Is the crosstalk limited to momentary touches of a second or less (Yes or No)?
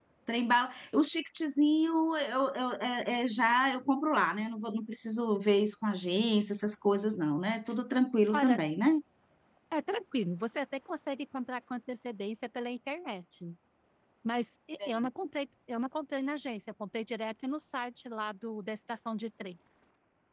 Yes